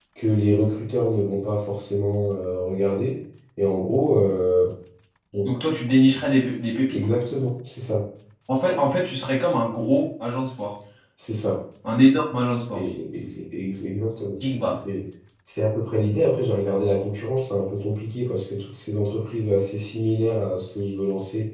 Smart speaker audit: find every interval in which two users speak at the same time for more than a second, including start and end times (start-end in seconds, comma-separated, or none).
none